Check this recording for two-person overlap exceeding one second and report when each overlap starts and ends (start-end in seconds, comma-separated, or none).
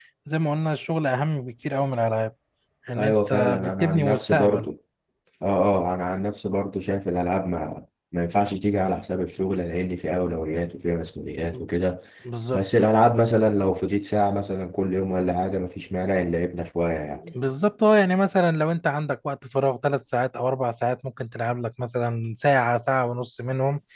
3.0-4.7